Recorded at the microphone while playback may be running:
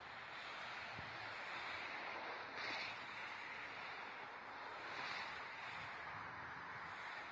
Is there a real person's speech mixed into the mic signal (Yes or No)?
No